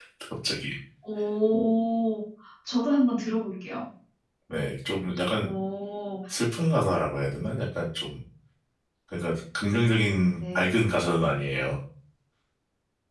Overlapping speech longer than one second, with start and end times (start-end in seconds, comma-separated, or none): none